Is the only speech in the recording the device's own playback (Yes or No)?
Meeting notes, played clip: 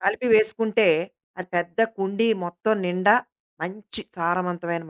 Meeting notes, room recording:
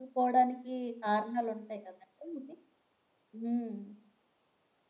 No